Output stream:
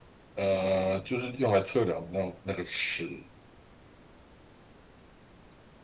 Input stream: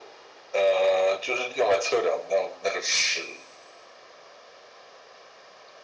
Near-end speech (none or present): none